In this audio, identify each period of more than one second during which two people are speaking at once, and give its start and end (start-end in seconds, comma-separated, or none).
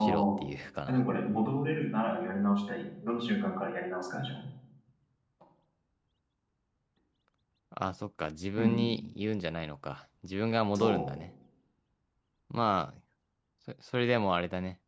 none